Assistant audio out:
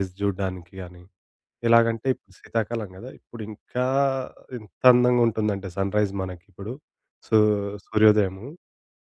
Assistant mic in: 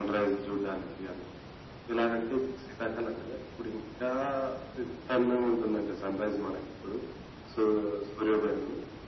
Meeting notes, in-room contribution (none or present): none